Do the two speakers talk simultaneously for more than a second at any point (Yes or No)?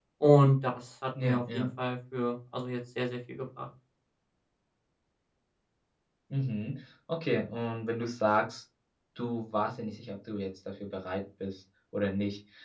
No